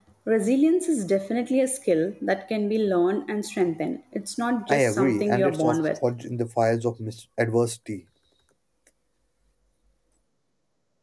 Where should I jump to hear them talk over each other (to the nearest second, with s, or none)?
5 s